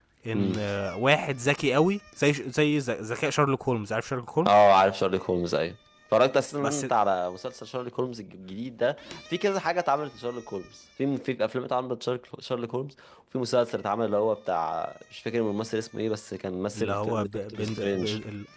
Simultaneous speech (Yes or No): Yes